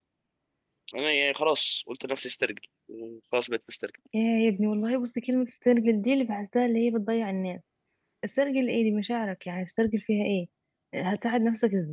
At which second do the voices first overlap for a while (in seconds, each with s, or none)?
none